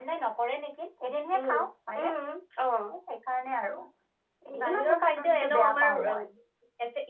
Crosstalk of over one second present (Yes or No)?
Yes